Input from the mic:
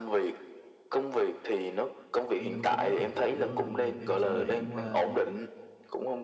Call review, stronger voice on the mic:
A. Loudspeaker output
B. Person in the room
A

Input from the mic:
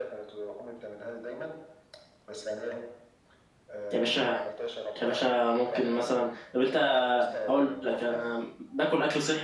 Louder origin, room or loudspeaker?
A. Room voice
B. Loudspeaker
A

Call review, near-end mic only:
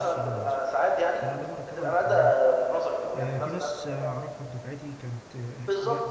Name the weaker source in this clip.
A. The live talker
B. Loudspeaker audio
A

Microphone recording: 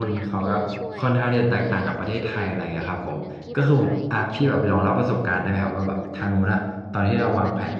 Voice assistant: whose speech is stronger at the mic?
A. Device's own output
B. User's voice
B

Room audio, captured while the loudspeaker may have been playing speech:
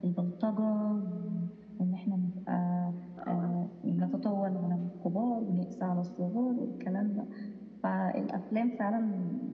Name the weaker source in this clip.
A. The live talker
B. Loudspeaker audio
A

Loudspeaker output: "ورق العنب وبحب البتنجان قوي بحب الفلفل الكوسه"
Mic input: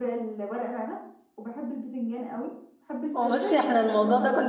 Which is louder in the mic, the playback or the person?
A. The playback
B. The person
B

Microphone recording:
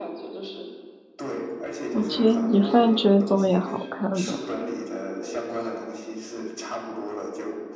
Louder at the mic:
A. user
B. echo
A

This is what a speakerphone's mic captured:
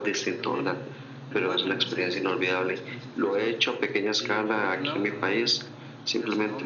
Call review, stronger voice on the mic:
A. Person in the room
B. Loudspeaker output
B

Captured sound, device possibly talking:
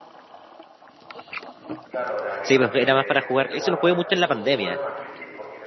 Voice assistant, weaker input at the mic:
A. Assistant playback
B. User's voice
A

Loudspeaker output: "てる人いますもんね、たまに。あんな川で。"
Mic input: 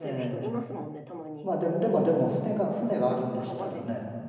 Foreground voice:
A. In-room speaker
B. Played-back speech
A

